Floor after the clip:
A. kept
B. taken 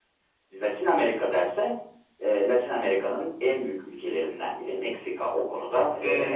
B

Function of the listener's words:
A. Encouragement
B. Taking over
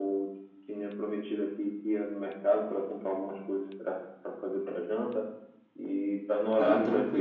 A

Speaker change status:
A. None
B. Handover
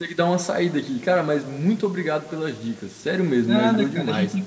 B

